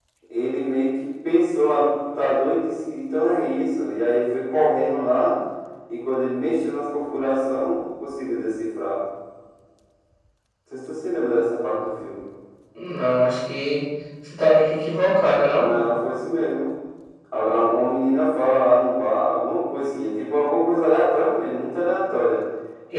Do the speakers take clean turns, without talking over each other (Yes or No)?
Yes